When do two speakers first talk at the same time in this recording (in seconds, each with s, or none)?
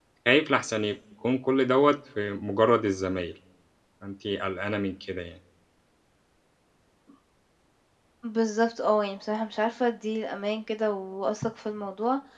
none